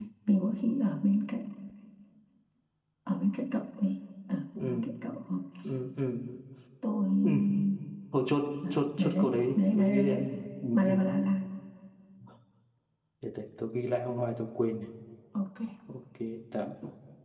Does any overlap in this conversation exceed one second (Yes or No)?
Yes